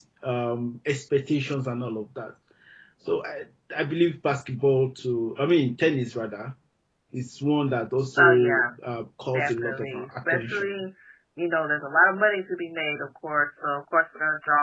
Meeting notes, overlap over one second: present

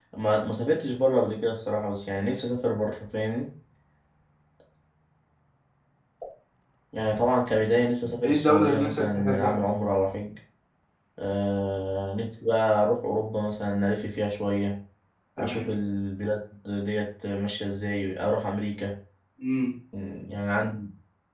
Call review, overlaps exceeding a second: present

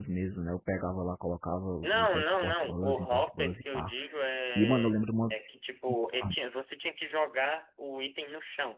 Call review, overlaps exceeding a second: present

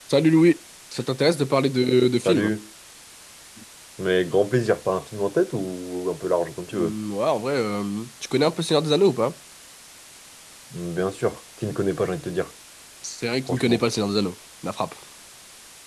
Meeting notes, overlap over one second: none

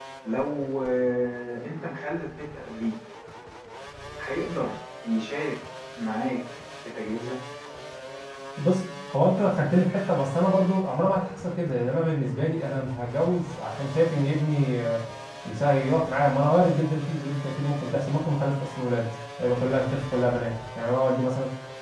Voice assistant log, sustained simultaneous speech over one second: none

